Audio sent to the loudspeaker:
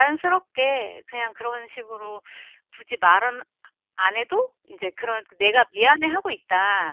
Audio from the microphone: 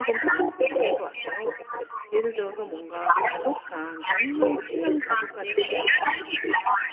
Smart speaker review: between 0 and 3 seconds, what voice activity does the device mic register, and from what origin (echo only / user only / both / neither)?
both